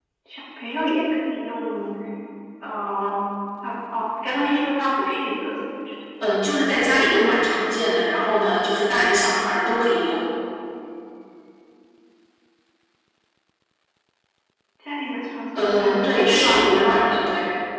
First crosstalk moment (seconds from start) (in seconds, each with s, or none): 15.6 s